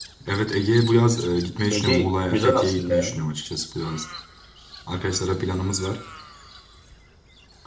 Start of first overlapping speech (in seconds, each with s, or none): 1.7 s